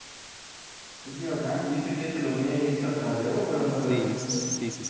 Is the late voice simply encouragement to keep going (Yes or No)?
No